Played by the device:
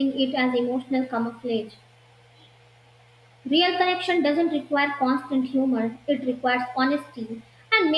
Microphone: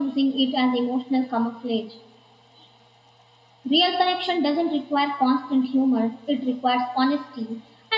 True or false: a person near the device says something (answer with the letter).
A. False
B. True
A